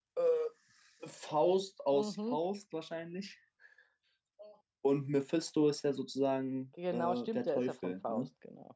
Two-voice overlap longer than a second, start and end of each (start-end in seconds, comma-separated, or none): 6.9-8.2